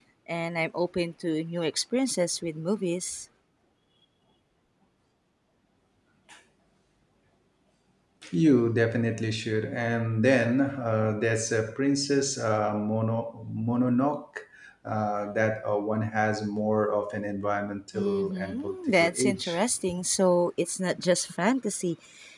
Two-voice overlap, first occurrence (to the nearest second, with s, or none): 18 s